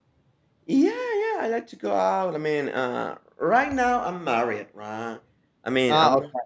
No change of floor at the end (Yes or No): Yes